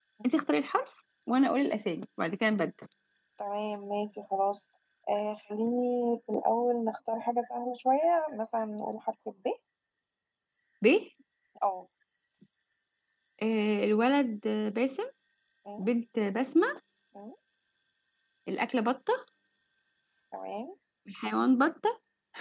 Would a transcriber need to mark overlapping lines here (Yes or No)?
No